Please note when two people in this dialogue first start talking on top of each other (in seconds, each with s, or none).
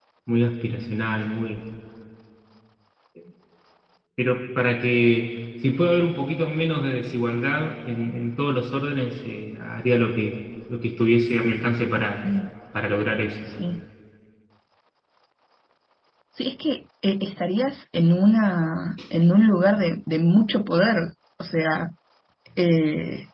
none